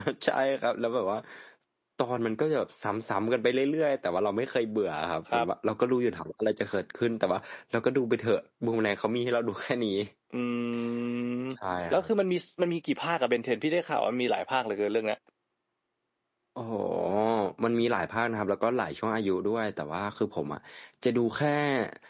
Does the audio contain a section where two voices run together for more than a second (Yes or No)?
No